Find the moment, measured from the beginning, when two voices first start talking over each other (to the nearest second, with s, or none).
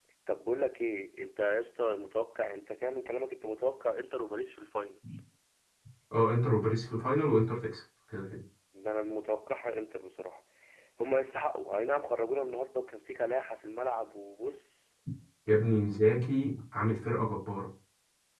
none